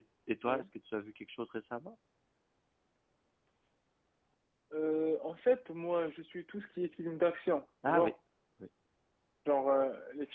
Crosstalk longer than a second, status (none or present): none